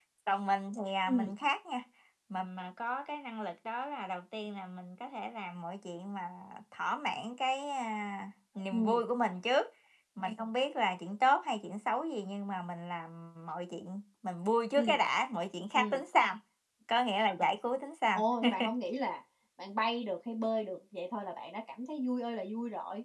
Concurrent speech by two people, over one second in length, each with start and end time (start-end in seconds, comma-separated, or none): none